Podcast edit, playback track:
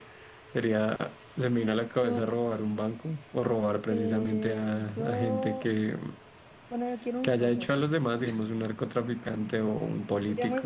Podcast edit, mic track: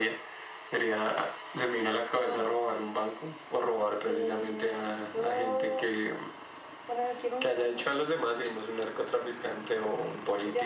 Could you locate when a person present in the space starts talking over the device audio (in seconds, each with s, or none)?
none